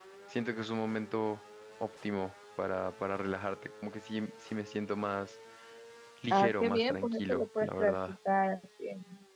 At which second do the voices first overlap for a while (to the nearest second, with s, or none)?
6 s